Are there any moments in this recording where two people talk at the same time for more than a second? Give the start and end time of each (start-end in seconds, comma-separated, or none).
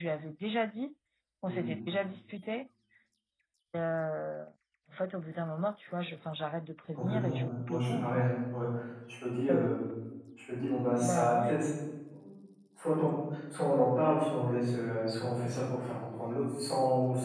7.0-8.3